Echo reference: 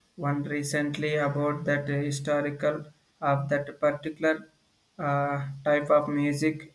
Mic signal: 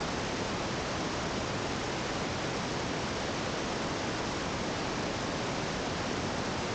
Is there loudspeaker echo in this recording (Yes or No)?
No